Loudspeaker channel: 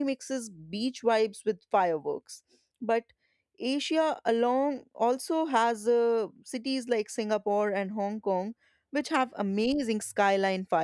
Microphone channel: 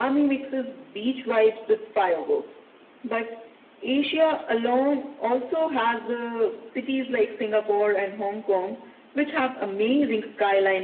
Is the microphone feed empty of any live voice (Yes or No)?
Yes